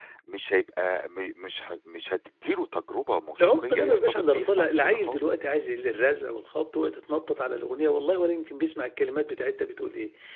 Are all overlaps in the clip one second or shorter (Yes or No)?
No